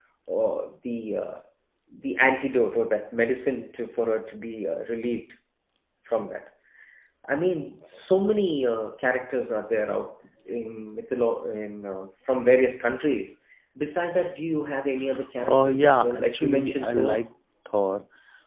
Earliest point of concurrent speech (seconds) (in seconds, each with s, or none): 15.4 s